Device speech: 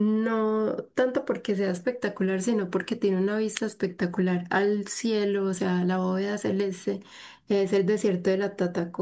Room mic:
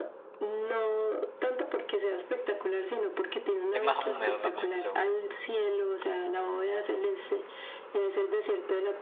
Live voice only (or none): Es más húmedo también, seguro.